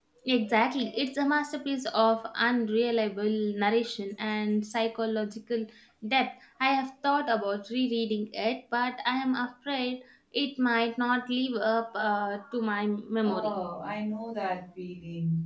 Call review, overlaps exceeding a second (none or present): none